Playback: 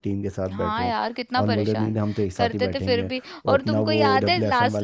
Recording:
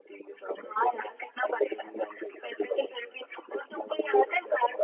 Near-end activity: none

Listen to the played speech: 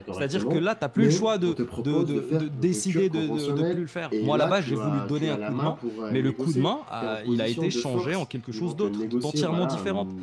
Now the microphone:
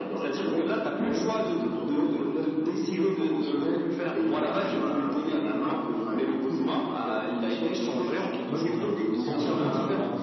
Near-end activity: present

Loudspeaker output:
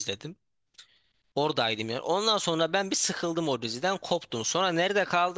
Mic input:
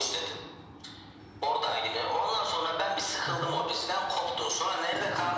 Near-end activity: present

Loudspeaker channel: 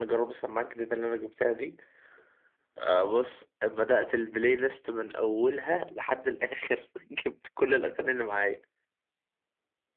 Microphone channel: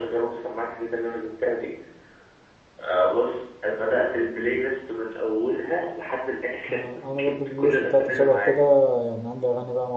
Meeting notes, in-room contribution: present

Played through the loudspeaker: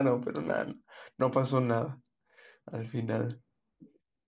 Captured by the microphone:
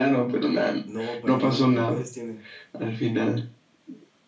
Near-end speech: present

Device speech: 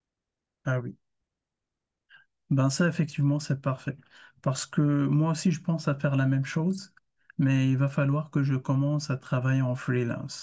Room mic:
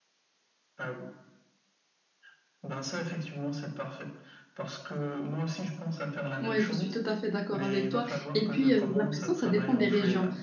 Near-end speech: present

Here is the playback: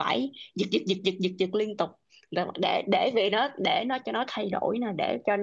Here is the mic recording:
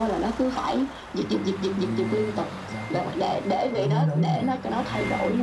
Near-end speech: present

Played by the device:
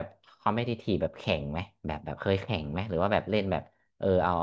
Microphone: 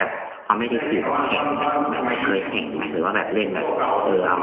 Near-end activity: present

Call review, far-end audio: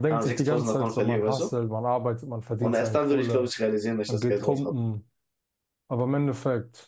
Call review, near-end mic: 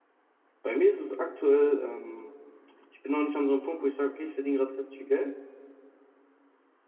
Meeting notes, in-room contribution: present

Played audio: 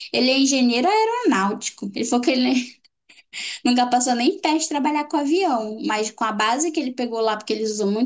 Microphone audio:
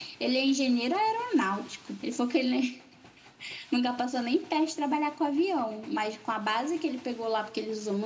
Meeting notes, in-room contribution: none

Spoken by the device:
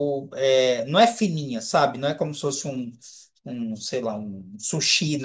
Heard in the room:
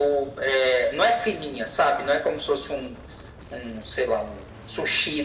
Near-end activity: none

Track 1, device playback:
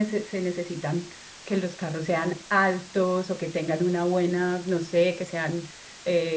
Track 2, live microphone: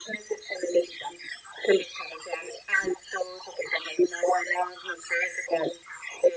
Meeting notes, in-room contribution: none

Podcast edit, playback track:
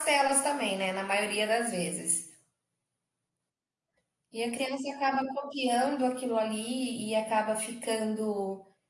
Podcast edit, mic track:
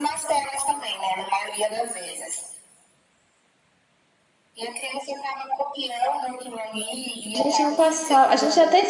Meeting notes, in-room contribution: present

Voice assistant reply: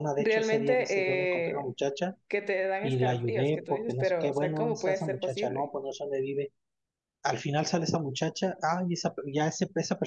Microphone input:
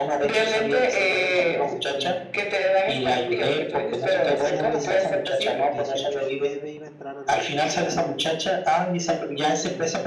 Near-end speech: present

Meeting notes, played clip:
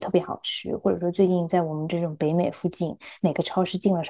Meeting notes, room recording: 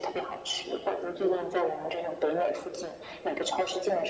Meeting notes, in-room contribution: none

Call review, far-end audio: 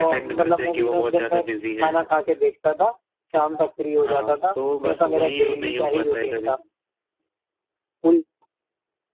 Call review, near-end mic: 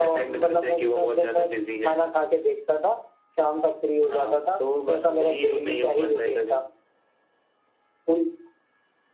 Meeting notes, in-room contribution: none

